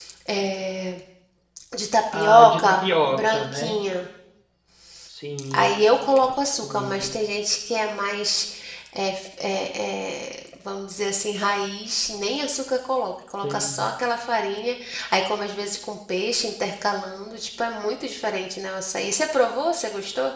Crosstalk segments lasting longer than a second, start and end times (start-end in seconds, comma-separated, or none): 2.1-3.8